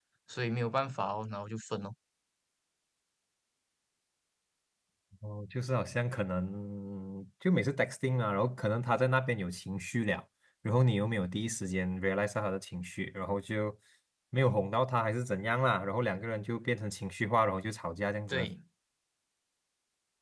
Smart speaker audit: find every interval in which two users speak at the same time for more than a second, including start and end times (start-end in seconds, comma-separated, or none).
none